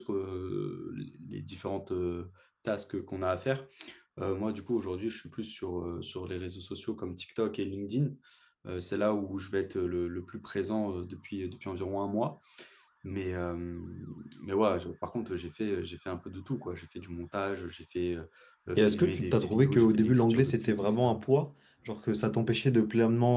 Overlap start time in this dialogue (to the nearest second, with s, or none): 19 s